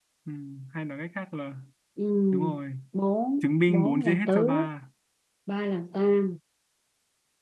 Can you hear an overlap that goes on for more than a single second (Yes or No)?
Yes